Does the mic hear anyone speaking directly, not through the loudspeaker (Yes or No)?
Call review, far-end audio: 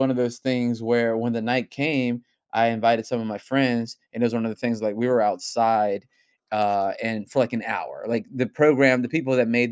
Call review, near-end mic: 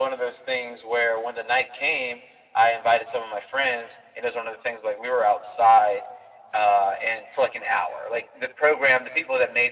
No